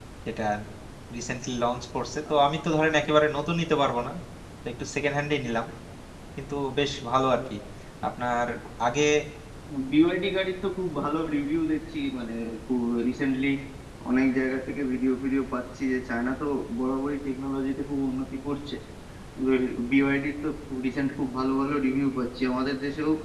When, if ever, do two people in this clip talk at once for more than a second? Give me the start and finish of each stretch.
none

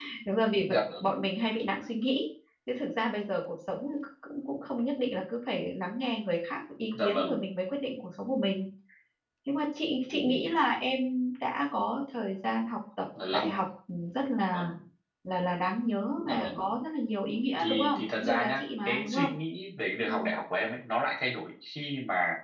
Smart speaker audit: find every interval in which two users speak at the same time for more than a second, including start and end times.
17.6-19.3

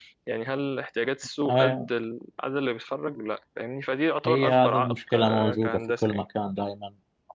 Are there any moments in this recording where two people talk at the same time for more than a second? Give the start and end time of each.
4.2-6.2

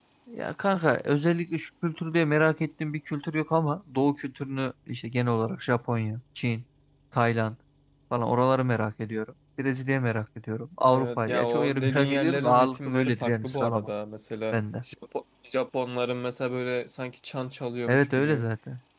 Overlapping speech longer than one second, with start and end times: 10.8-13.9

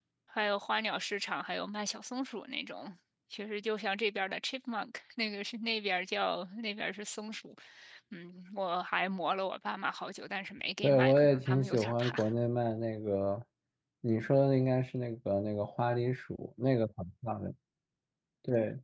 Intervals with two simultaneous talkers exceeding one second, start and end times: 10.8-12.2

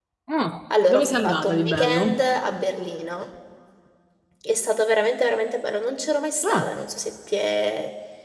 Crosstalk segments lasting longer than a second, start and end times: 0.9-2.1

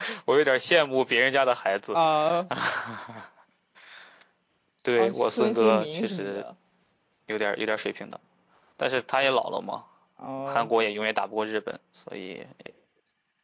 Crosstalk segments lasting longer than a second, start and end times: 5.0-6.4

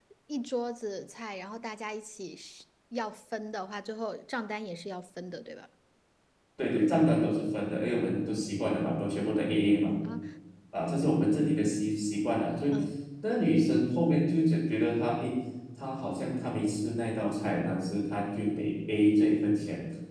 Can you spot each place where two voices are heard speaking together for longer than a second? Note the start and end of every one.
none

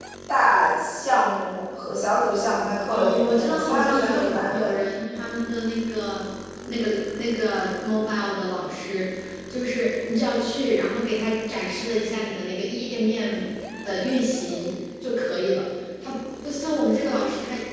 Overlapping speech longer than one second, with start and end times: 2.9-4.8

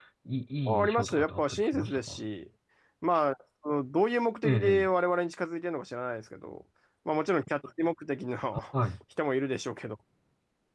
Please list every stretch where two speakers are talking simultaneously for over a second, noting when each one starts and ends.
0.7-2.2

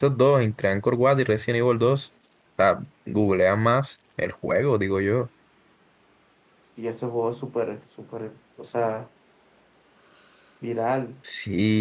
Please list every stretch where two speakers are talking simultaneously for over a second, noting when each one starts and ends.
none

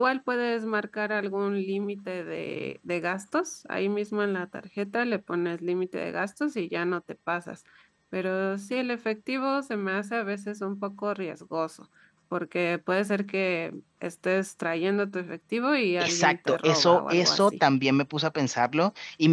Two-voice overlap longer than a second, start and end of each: 16.0-17.5

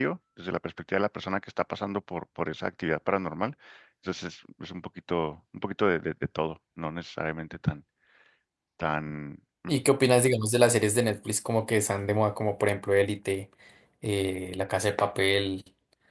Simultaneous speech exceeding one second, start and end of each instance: none

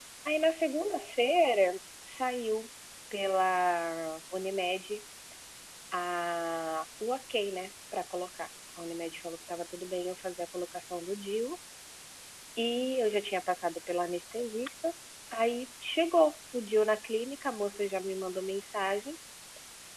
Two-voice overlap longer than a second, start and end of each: none

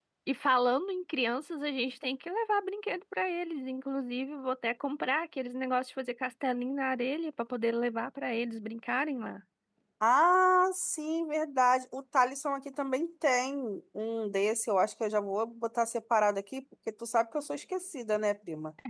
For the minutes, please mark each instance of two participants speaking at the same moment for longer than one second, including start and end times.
none

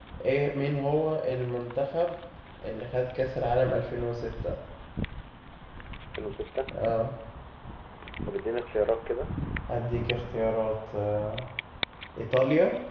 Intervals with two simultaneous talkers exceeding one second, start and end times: none

